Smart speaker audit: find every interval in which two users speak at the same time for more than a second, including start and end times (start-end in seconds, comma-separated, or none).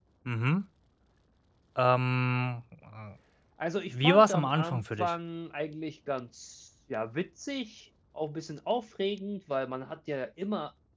3.9-5.1